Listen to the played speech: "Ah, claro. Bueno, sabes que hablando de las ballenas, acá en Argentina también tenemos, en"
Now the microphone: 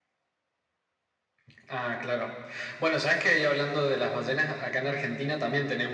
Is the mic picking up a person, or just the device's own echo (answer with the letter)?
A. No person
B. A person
A